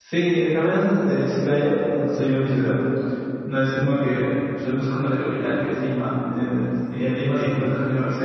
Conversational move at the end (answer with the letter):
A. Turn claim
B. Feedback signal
B